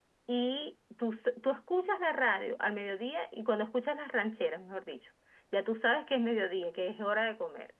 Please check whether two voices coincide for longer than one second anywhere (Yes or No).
No